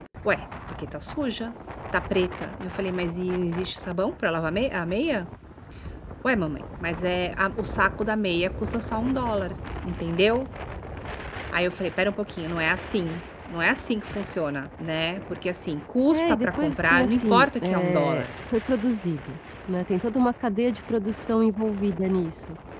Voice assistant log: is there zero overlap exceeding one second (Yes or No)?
No